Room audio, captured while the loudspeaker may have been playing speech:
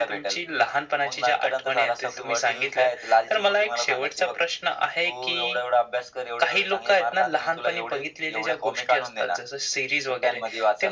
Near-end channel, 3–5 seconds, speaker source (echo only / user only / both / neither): echo only